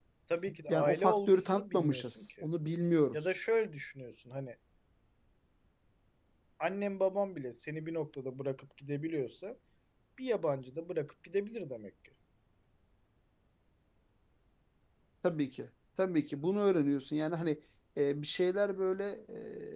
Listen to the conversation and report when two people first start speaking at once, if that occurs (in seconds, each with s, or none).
0.7 s